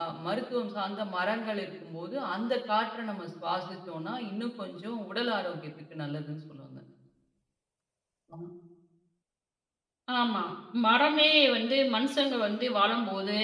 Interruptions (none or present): none